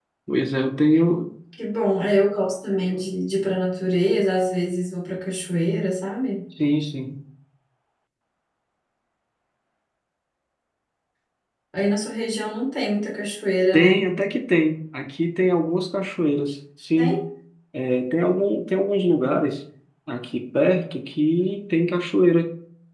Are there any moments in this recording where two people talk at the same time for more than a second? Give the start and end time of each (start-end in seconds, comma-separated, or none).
none